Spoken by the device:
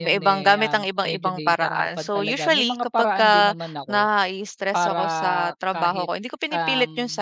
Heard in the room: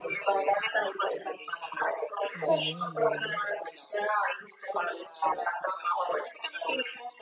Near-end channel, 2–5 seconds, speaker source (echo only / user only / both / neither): both